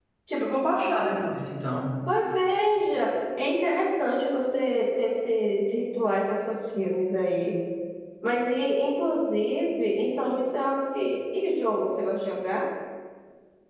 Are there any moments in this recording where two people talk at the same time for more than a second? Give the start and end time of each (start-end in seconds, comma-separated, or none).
none